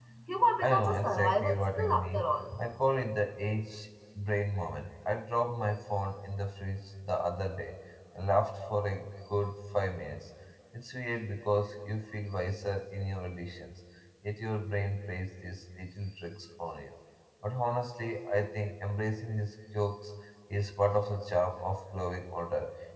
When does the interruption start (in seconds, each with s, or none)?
0.6 s